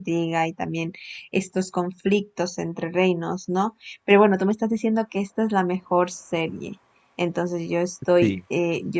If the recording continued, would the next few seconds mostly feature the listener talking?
No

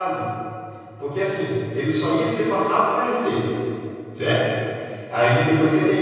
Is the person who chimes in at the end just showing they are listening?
Yes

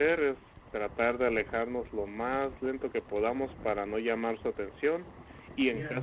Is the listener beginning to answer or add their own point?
No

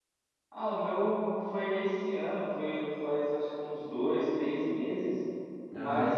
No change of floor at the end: Yes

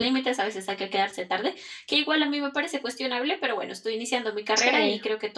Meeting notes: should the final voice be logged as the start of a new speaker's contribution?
No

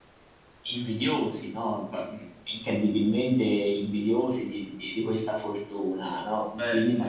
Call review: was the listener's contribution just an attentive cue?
Yes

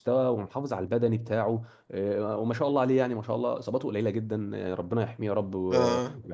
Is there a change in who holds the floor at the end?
No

